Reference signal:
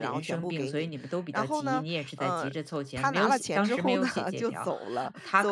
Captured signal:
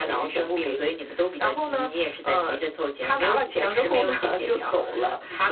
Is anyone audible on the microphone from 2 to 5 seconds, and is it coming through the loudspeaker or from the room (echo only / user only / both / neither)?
echo only